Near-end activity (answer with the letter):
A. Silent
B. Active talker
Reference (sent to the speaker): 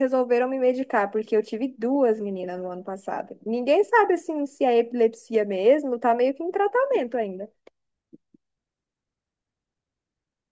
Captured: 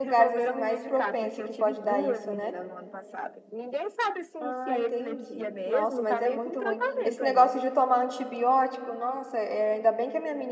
B